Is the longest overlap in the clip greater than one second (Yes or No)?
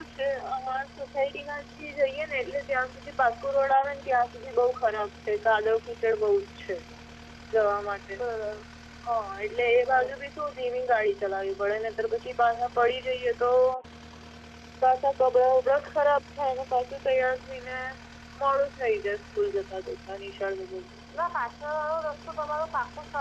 No